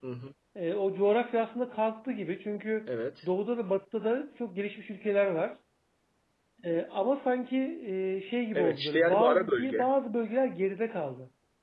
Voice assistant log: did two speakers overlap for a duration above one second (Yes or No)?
Yes